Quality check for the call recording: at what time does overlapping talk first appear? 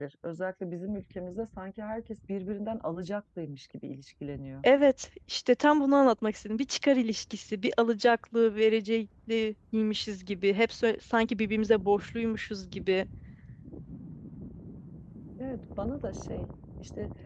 none

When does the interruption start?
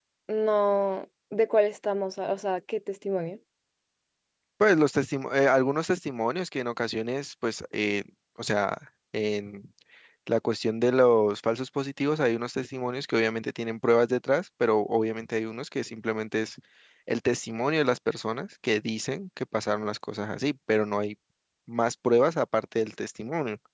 none

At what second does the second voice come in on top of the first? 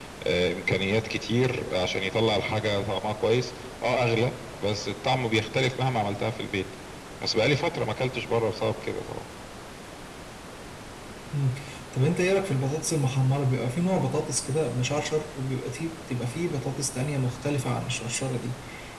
none

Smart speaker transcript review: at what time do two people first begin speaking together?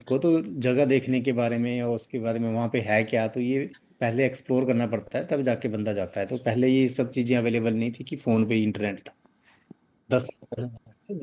none

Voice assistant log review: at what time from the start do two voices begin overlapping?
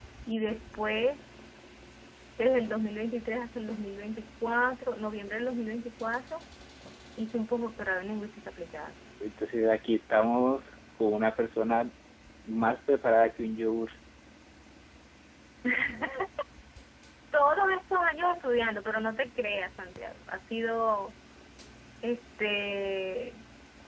none

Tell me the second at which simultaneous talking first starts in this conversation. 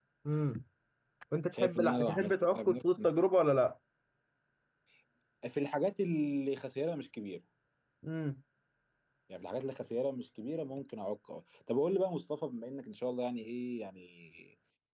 2 s

